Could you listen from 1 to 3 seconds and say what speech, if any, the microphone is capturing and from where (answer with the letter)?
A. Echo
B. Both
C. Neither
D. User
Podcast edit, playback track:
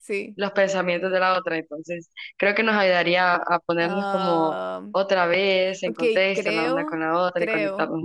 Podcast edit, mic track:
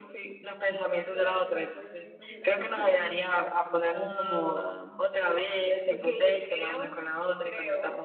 B